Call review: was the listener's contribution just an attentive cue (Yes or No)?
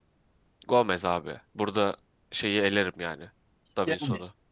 Yes